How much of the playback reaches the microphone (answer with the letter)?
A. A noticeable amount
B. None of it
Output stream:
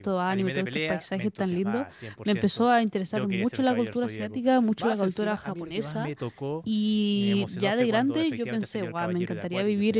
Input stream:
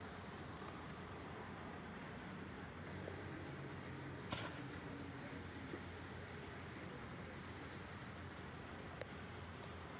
B